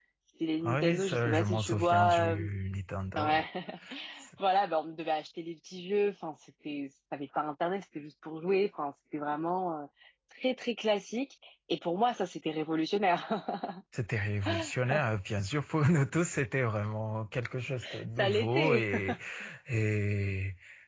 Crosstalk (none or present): present